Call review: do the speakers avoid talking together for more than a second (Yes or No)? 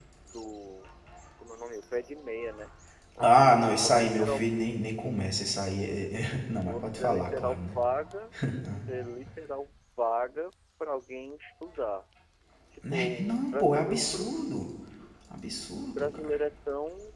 No